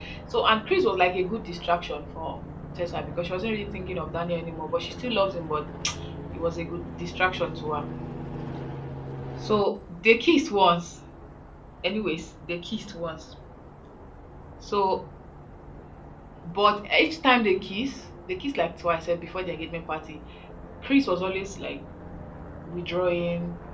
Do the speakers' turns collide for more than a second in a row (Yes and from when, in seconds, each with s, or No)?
No